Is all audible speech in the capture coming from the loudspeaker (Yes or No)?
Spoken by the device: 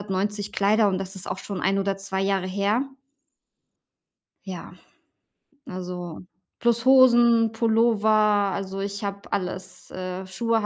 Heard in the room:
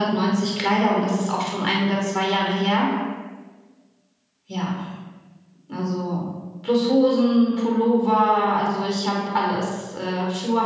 Yes